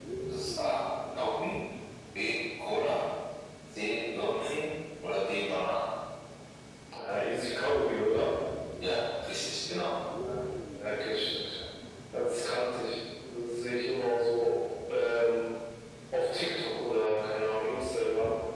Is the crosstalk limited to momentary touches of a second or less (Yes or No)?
Yes